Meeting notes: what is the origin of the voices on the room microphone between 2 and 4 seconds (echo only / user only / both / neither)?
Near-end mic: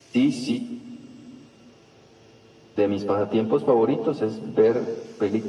echo only